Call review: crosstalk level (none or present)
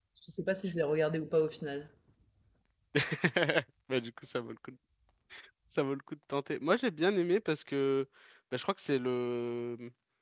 none